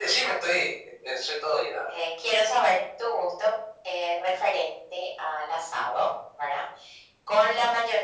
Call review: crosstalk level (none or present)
none